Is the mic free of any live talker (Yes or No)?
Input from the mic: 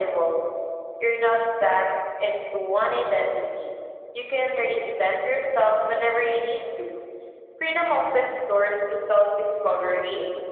Yes